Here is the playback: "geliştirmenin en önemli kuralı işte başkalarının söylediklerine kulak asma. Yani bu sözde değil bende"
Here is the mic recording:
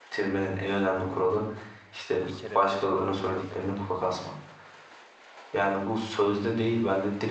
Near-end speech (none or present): present